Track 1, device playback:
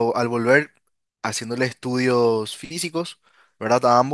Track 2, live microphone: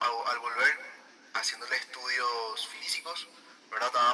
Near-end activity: none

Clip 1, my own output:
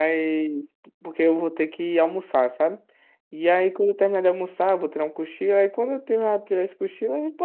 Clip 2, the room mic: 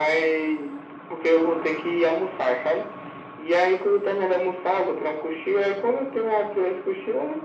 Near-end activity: none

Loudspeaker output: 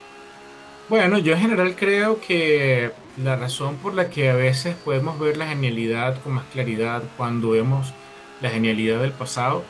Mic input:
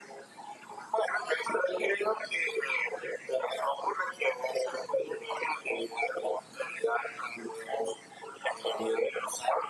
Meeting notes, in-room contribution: none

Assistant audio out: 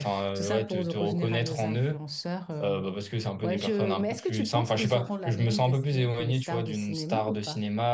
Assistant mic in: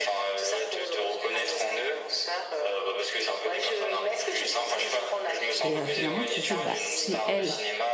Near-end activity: present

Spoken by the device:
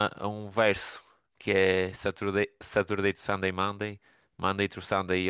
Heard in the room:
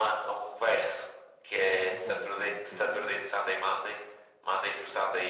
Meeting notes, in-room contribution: present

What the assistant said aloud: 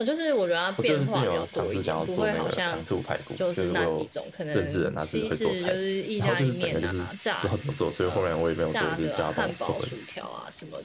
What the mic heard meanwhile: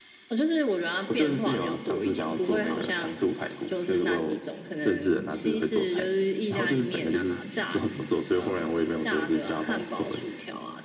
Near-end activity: none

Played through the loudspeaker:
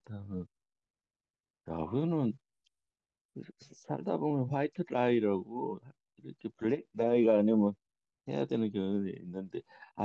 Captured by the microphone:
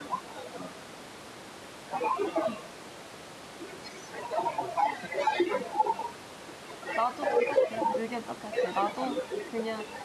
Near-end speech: present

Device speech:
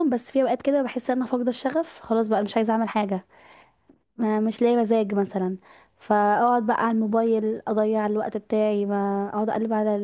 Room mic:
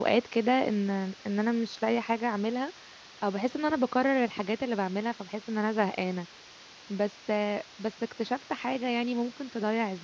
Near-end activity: present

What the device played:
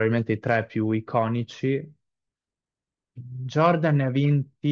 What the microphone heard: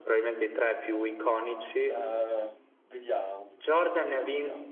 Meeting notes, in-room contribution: present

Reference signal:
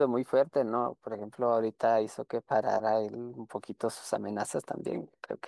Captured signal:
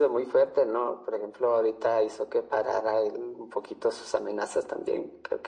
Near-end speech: none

